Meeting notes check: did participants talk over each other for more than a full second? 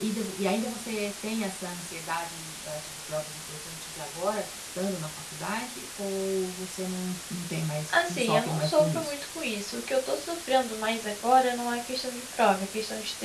Yes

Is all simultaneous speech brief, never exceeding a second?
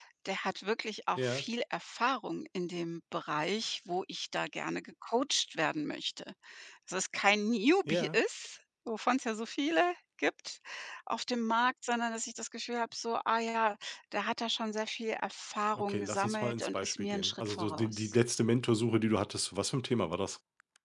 No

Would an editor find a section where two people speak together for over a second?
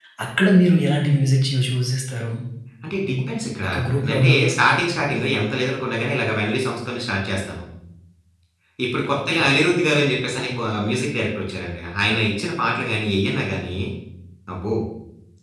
No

